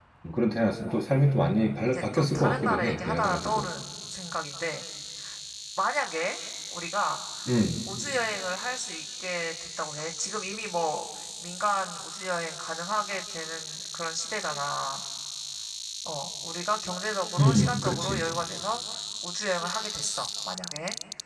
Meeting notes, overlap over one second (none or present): present